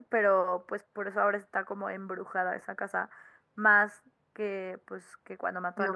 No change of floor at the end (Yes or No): No